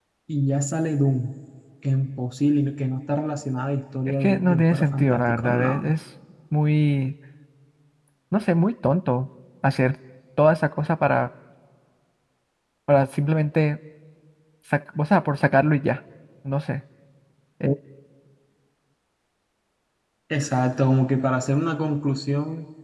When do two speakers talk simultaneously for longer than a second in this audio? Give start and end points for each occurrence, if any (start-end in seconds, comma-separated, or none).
4.1-5.9